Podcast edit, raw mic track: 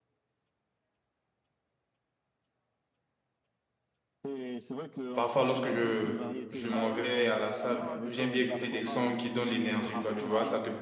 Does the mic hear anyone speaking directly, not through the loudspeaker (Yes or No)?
Yes